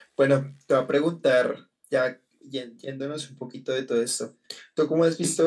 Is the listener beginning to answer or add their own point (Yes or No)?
No